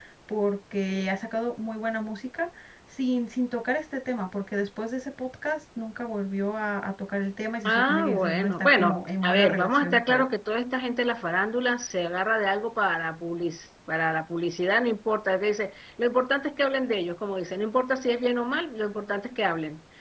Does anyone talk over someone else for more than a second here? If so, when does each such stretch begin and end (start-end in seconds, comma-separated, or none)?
7.7-10.2